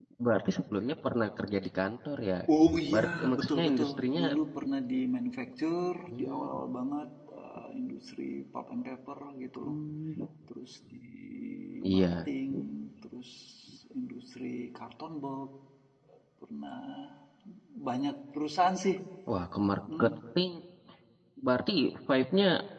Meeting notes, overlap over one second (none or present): present